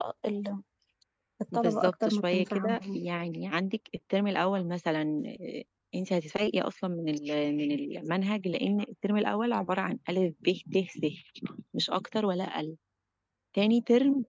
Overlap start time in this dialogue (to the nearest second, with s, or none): 2 s